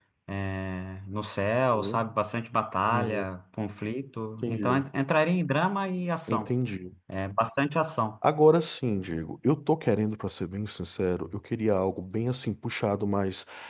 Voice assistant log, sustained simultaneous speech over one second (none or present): none